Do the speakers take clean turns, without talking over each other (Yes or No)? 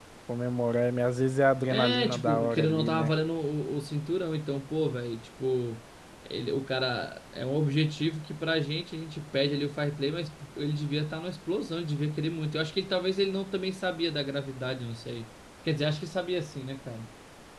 No